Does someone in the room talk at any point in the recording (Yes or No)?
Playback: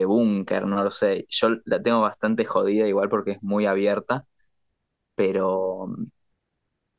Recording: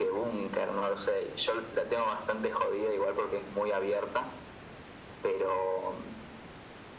No